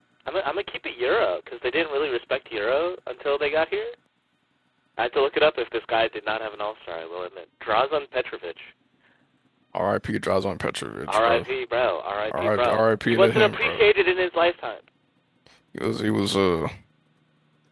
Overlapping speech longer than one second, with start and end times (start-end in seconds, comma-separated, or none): 12.2-13.8